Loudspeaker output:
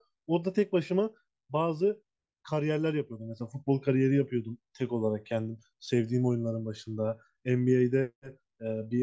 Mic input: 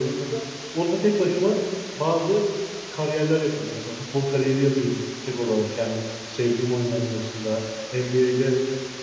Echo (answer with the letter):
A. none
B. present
B